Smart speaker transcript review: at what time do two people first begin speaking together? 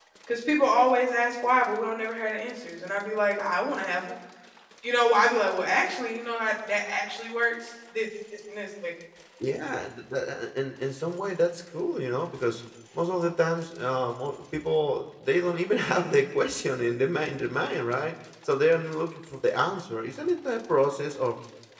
none

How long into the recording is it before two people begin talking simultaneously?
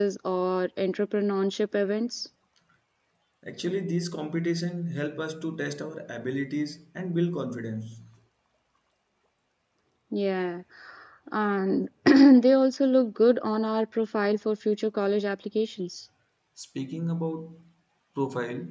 none

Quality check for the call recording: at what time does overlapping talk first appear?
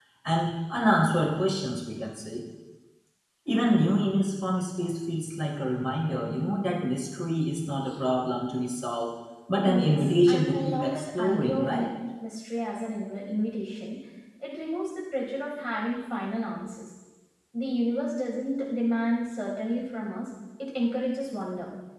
9.6 s

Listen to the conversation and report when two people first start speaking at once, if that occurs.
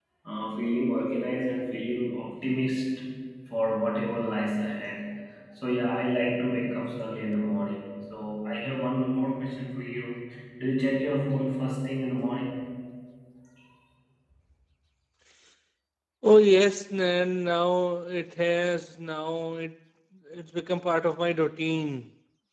none

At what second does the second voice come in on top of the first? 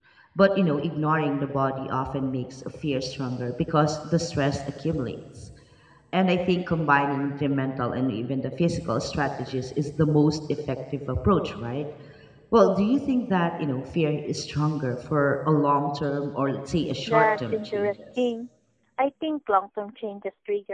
17.1 s

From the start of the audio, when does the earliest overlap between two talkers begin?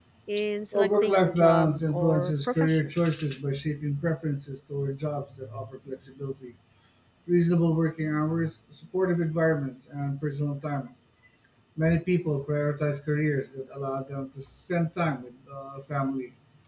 0.7 s

